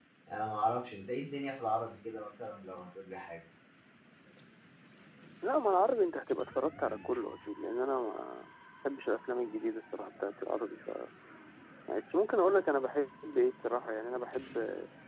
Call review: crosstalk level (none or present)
none